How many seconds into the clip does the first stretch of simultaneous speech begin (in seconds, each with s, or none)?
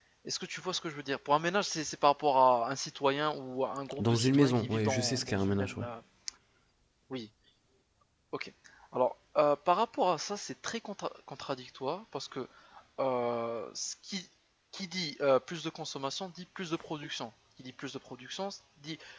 3.9 s